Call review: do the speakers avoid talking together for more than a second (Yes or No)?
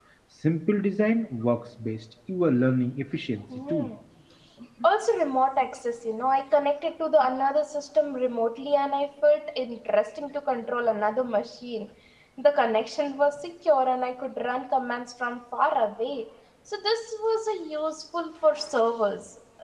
Yes